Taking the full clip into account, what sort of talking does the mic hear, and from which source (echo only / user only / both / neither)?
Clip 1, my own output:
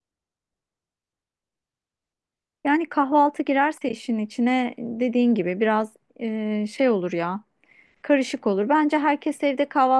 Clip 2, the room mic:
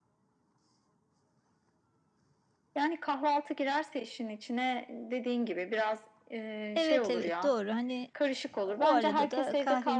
both